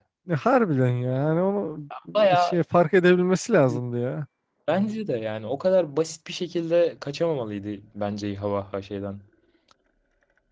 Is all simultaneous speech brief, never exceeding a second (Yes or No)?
Yes